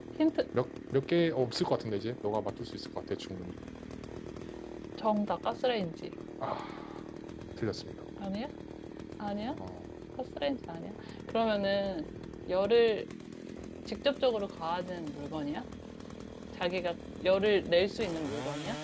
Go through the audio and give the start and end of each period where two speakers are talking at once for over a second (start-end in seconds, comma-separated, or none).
none